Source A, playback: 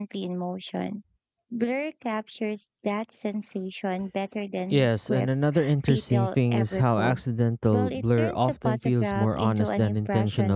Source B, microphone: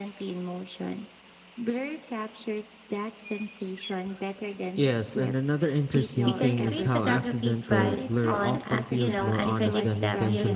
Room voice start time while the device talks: 6.2 s

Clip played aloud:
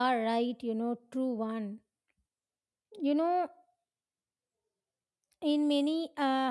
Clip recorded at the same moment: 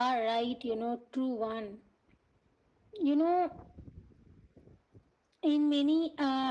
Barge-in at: none

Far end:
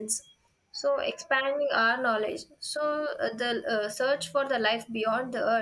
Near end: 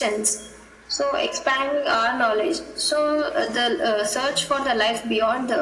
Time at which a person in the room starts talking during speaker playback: none

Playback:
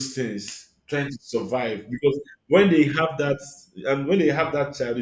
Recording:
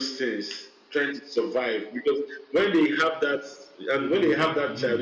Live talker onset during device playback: 3.8 s

